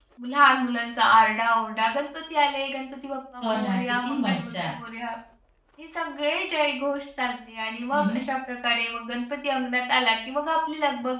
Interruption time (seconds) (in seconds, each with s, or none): 3.4 s